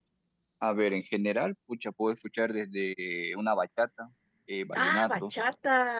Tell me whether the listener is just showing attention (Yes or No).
No